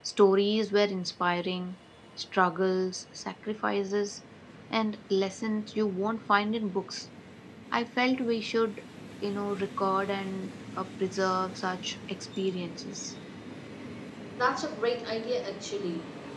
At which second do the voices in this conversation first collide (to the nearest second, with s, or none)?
none